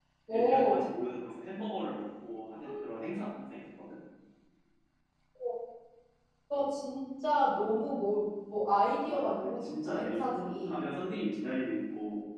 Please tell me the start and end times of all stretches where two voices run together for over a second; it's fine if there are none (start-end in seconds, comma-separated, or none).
9.1-10.8